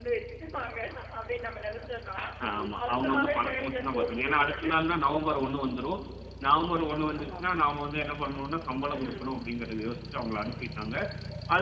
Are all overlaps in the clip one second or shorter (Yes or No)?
No